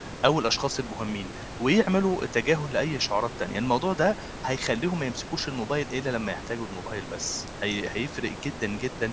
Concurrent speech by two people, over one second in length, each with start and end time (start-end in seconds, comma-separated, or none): none